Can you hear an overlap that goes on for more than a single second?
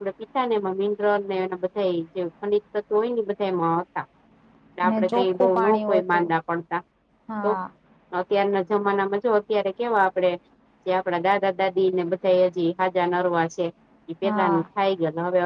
Yes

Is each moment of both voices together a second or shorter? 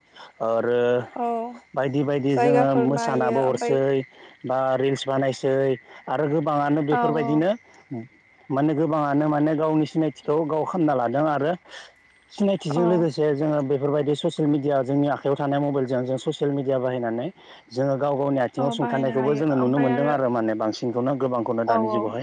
No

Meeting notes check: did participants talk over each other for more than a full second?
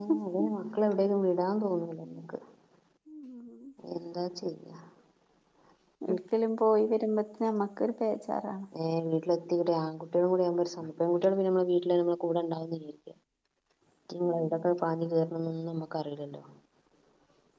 No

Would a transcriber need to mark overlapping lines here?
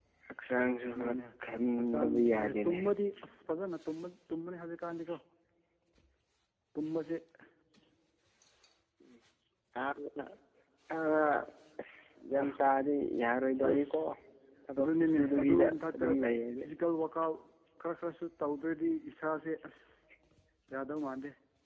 Yes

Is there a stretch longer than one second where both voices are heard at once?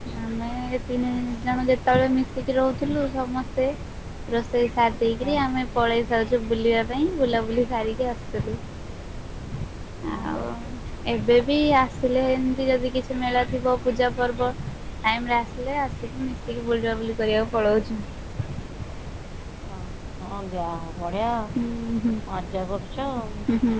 No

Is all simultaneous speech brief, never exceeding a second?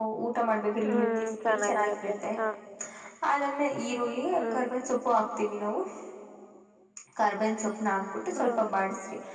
No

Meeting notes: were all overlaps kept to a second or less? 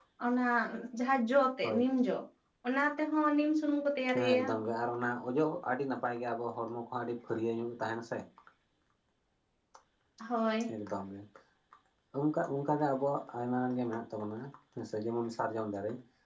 Yes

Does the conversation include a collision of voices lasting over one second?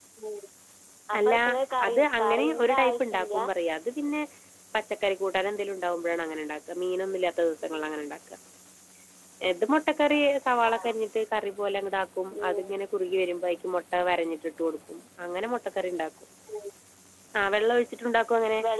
Yes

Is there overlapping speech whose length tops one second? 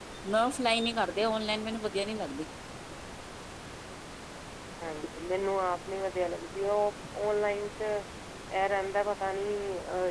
No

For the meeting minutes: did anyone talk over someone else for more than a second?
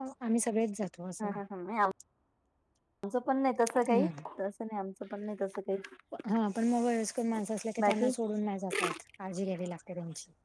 No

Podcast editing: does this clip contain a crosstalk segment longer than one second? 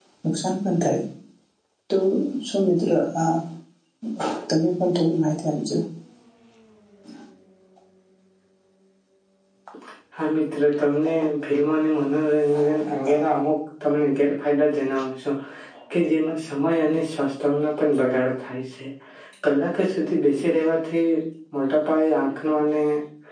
No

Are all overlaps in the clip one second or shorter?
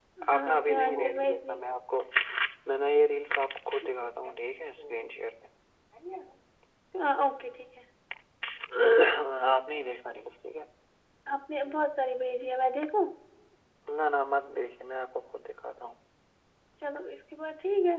No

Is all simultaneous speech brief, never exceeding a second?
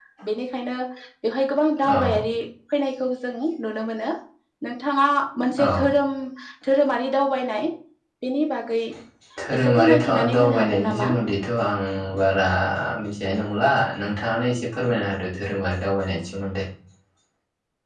No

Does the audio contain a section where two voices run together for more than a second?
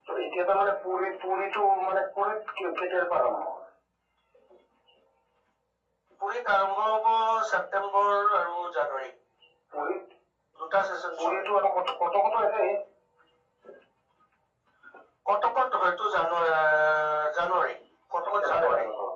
No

